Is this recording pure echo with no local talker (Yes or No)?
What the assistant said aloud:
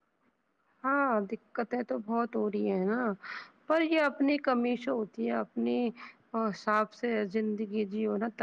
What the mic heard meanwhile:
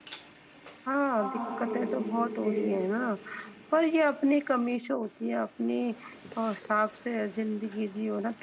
No